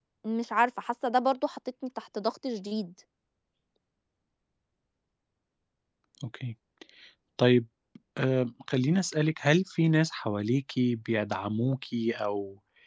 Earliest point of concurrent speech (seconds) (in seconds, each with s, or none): none